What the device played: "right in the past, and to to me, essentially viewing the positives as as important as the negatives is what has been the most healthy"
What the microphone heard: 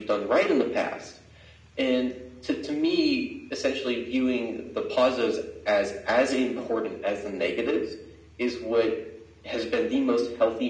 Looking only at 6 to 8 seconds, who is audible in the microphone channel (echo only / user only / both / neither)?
echo only